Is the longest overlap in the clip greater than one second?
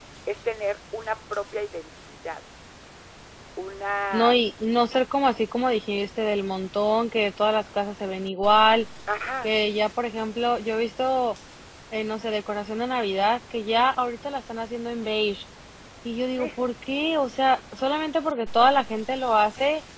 No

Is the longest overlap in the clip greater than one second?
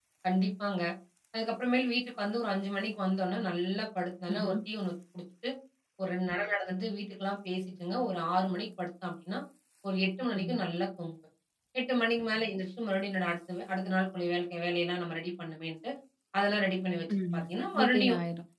No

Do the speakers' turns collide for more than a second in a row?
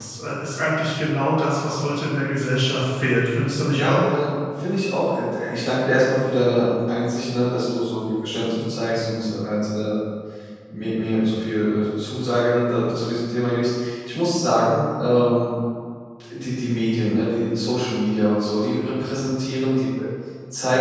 No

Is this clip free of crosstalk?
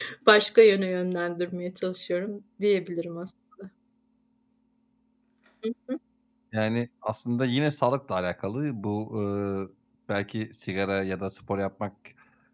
Yes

